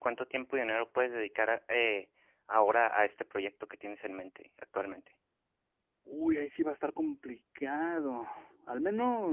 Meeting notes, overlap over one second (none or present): none